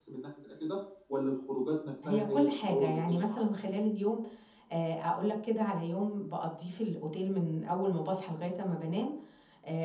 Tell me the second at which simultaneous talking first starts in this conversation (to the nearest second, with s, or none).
2 s